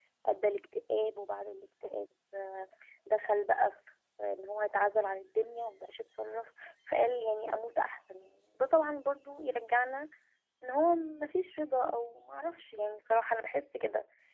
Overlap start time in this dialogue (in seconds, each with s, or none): none